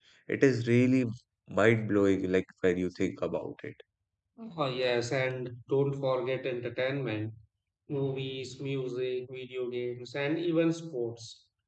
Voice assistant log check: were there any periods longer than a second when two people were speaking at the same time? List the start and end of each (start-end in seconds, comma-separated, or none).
none